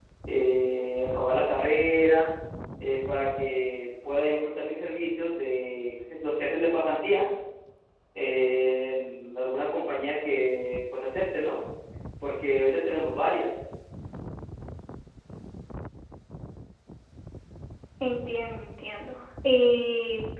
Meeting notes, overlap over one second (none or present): none